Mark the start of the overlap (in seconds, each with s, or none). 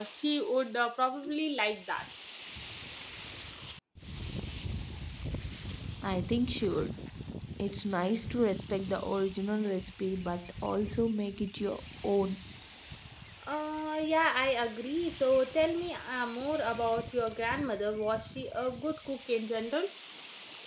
none